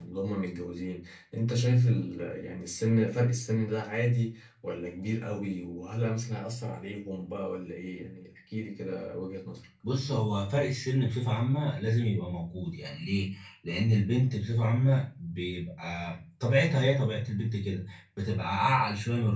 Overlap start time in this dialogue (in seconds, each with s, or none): none